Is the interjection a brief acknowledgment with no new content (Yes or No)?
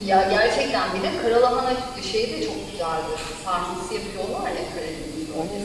No